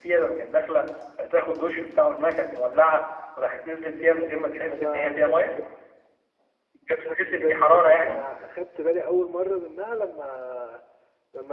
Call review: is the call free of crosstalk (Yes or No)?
No